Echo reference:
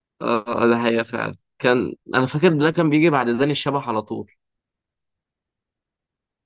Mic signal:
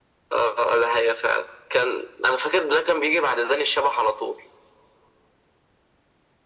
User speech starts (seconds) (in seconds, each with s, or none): none